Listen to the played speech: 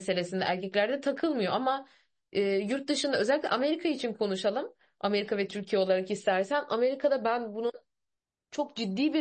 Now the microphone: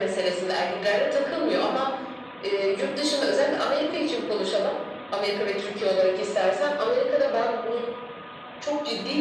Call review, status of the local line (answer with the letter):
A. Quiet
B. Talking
A